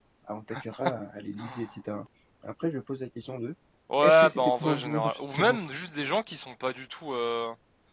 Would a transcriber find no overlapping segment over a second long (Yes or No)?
No